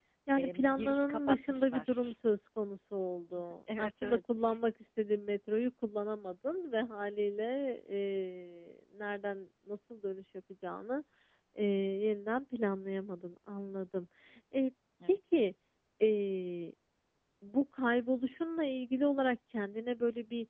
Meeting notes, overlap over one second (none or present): present